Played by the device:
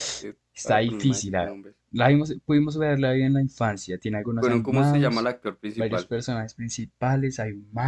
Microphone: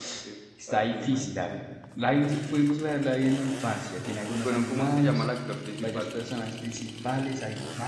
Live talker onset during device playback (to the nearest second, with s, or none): none